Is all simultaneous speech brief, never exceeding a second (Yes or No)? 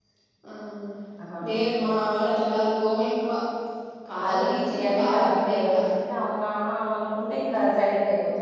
No